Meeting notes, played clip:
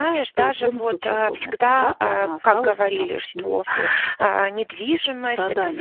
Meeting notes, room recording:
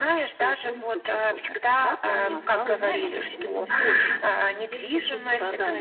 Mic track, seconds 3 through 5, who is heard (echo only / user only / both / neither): both